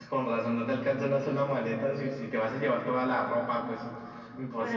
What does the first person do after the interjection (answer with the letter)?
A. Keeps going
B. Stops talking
B